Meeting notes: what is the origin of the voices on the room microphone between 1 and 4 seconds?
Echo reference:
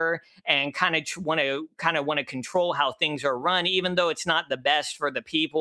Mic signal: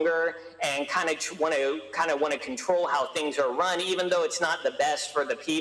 echo only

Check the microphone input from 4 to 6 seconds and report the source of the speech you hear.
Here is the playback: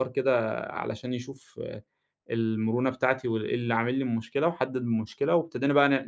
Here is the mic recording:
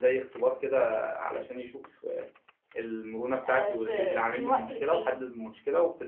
both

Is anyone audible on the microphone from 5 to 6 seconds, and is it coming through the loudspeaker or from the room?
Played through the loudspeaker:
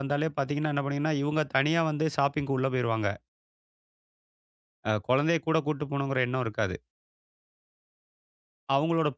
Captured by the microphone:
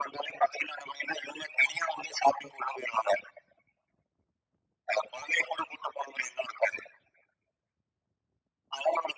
echo only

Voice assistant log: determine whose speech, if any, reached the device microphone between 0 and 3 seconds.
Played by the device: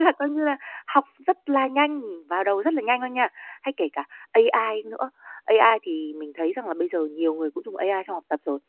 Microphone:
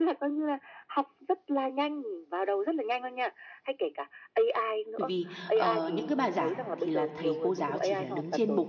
echo only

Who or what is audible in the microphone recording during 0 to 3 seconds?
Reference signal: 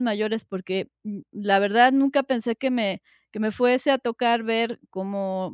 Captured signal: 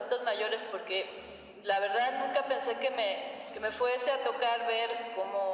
echo only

